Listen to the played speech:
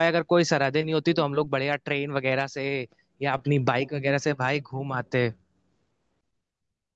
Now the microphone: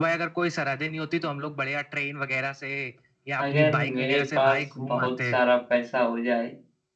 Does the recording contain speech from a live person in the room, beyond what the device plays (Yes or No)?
Yes